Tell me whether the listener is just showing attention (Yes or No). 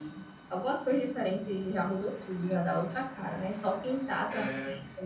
Yes